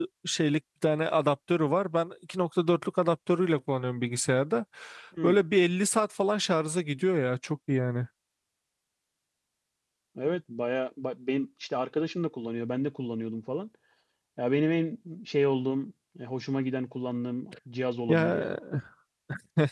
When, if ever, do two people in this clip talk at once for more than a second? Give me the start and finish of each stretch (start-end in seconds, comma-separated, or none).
none